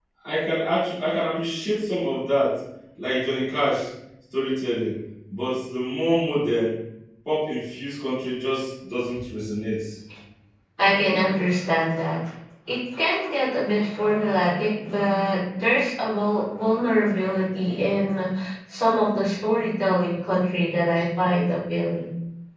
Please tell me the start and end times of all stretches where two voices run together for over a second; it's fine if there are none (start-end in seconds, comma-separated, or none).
none